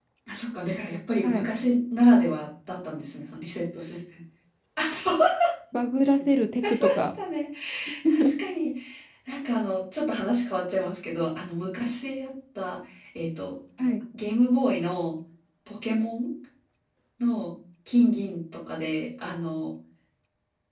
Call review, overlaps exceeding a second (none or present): none